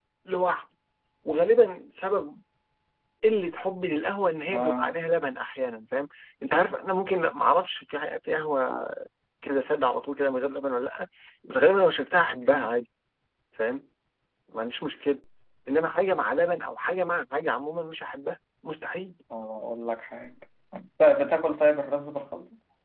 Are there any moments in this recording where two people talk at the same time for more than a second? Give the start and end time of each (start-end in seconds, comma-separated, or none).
none